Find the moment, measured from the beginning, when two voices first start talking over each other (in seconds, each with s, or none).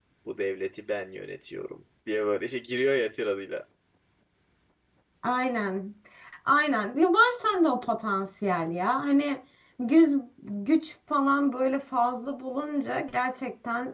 none